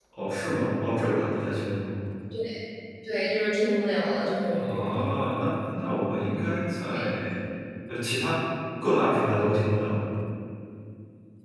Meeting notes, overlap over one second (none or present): none